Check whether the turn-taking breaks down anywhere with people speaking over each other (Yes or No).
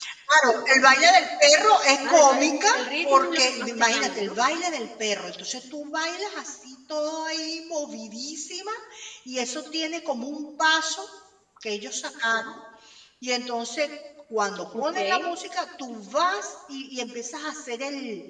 Yes